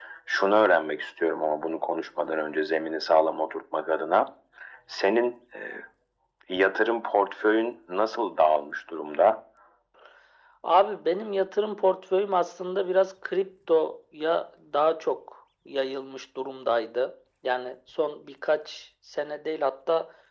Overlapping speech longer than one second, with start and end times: none

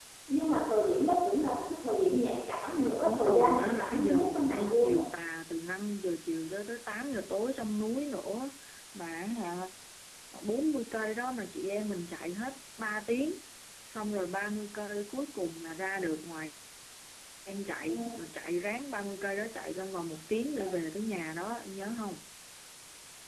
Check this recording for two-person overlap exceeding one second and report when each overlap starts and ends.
3.0-5.0

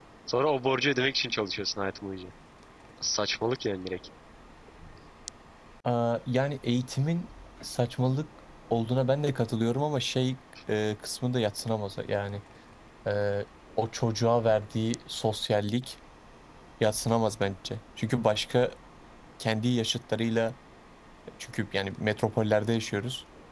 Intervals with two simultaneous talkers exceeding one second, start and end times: none

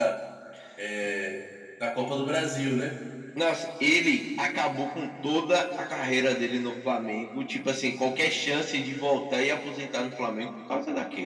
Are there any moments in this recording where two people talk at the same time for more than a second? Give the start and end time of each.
none

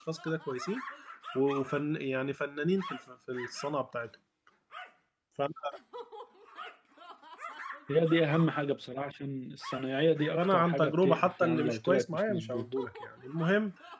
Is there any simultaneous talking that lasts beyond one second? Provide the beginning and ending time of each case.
10.4-12.7

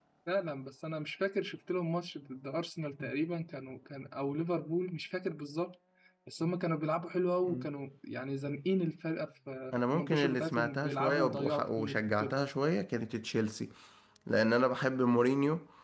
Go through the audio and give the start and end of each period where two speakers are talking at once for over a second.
9.9-12.4

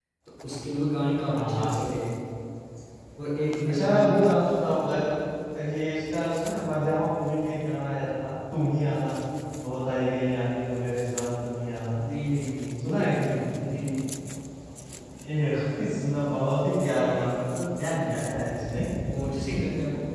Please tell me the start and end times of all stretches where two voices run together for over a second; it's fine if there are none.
none

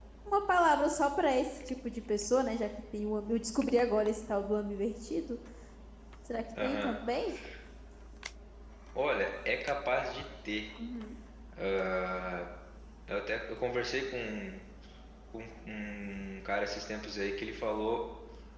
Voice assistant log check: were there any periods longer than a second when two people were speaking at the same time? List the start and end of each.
none

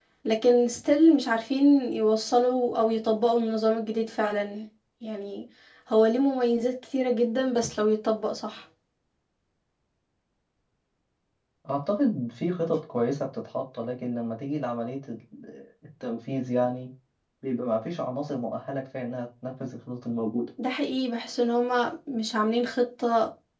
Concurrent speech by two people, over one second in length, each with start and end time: none

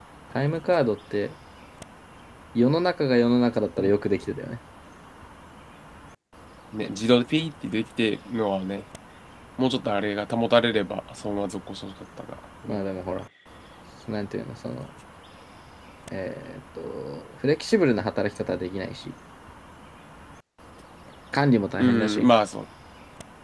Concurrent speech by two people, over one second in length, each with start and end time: none

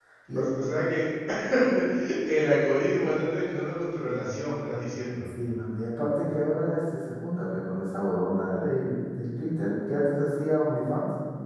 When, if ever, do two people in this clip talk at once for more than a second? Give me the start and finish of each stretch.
none

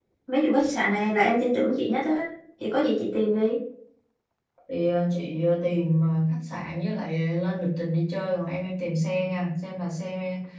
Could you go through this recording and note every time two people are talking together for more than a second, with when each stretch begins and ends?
none

